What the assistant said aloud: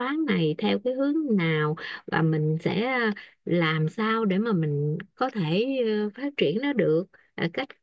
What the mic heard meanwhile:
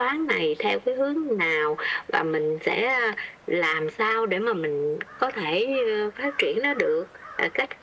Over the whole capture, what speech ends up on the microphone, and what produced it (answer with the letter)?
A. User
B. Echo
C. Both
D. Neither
B